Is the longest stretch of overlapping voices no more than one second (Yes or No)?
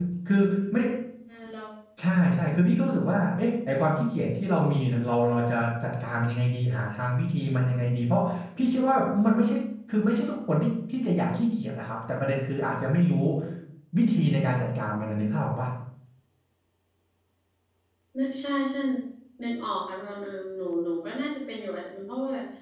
Yes